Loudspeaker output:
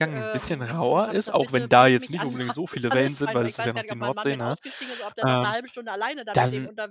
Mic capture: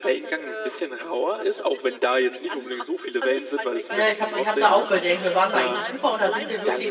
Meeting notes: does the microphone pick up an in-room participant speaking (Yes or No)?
Yes